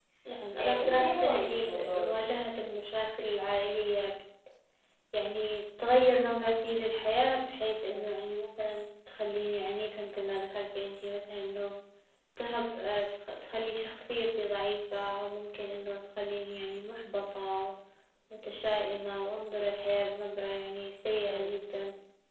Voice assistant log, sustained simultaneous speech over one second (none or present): present